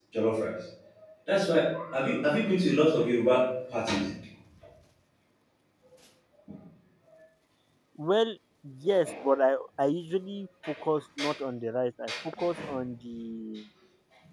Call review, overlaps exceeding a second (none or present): none